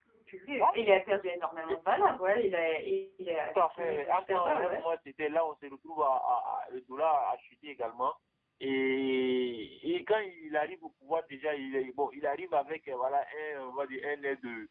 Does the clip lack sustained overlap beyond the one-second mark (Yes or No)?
No